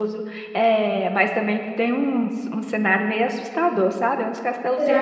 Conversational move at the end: listening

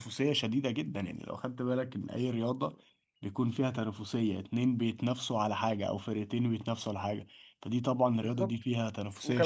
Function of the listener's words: taking over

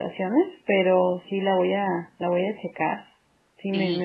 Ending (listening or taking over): taking over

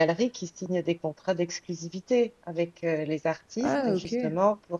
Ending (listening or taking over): listening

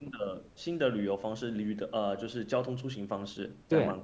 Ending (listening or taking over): taking over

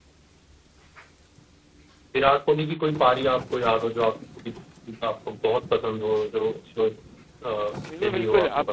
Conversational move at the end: taking over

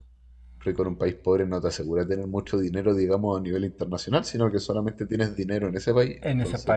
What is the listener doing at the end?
taking over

